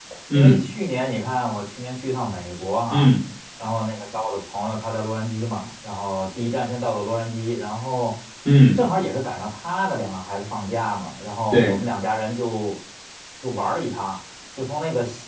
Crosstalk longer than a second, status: none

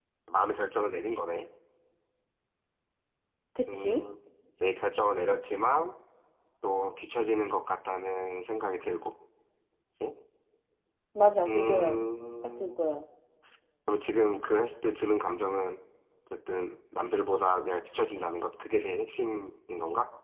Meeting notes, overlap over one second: none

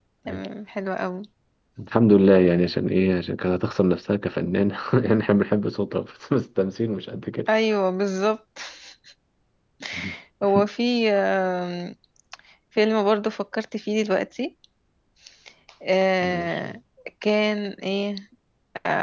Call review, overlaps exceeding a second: none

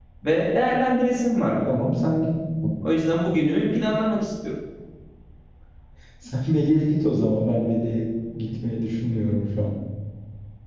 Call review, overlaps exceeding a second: none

